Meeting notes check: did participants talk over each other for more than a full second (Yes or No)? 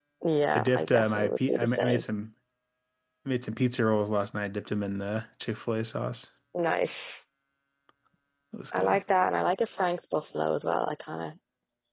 Yes